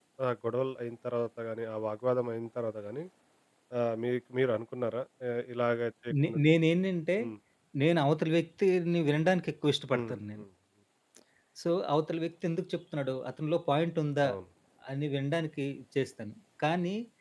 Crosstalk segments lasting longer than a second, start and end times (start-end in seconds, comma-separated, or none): none